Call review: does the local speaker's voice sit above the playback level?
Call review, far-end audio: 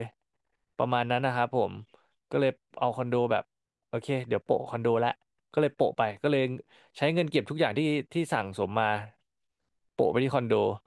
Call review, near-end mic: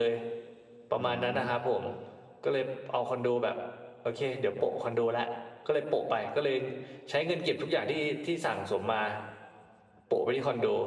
No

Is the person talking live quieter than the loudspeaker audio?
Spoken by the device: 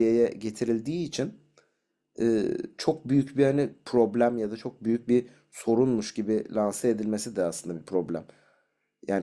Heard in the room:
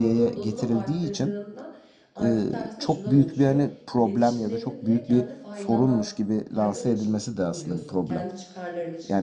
Yes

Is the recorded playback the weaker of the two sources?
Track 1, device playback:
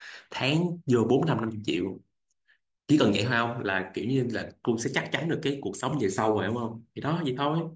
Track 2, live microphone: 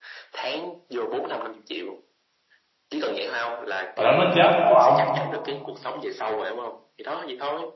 Yes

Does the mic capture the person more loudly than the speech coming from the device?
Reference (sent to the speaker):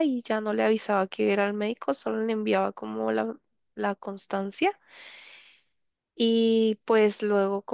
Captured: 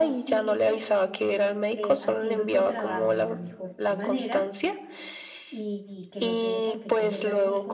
No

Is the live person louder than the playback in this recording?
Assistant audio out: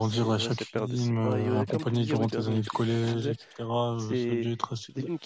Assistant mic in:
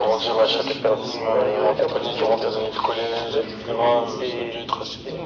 No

